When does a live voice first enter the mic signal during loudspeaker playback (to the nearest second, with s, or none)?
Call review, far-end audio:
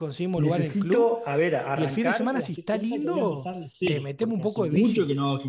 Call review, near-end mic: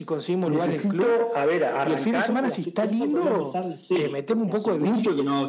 none